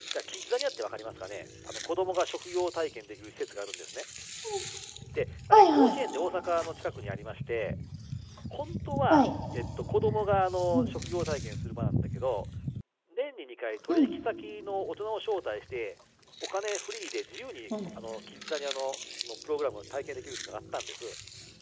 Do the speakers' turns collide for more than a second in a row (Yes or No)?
No